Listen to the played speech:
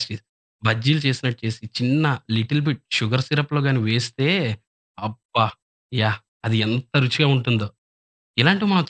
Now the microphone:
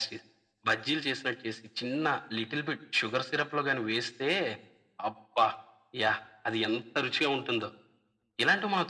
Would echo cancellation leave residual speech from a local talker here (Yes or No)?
No